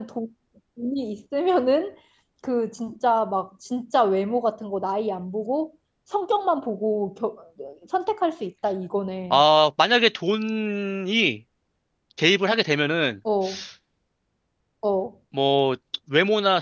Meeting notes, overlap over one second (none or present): none